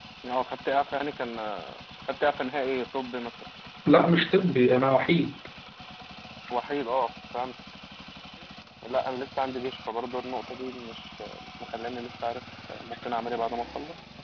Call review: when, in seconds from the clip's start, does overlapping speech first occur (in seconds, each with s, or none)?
none